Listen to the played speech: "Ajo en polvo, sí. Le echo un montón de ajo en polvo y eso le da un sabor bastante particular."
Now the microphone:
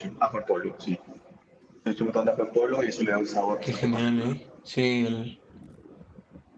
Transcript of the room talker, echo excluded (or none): Qué genial, ¿eh? Sí, el,